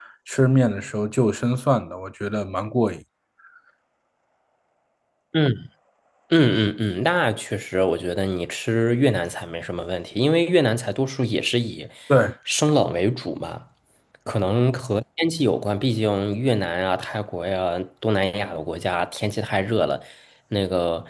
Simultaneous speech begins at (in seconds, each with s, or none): none